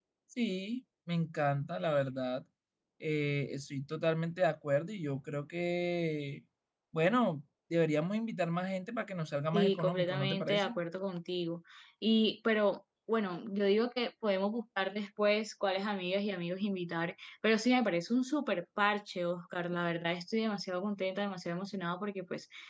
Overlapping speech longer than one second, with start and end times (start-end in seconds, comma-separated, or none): 9.5-10.8